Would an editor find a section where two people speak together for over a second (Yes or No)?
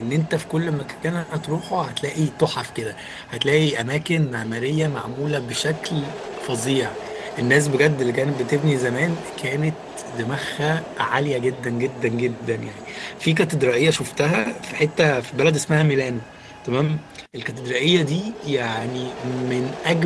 No